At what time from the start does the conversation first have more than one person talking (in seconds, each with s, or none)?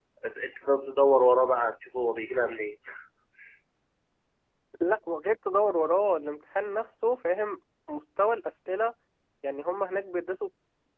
none